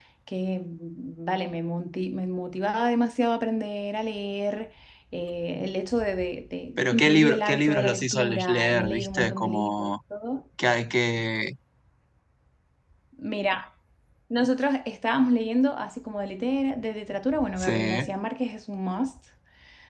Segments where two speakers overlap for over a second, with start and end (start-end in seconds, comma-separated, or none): 6.8-9.9